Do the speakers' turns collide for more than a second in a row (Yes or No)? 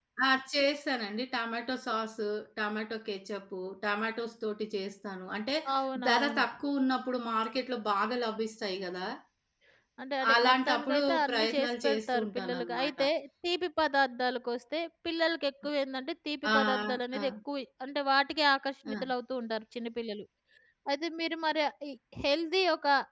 Yes